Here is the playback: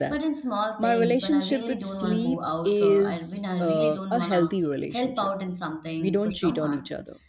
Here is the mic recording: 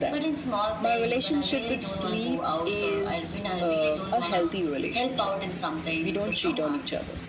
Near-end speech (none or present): none